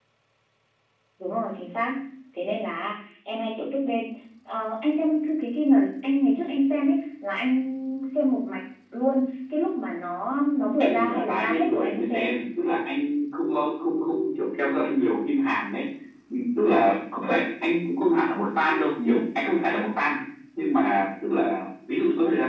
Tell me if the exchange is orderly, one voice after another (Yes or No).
No